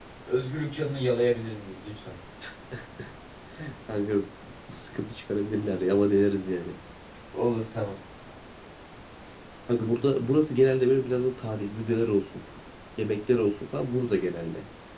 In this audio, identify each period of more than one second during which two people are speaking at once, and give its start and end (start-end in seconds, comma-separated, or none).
none